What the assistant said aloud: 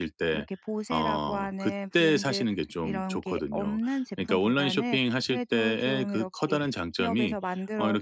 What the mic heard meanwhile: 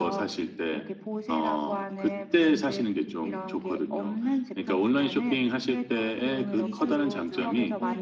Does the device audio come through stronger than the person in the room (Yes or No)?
Yes